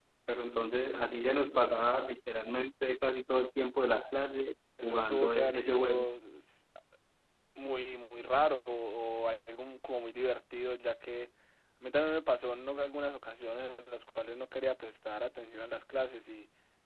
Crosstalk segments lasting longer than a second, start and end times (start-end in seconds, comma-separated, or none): 4.8-6.1